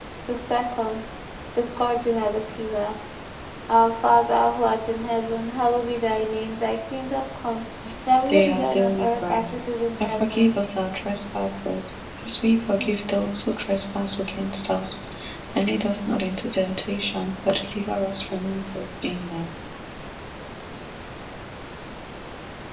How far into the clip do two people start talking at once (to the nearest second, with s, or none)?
8 s